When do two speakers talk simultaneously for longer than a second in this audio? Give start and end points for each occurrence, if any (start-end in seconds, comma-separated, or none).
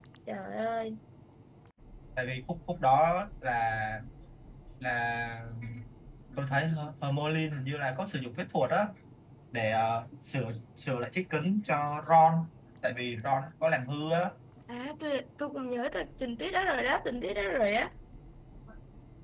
none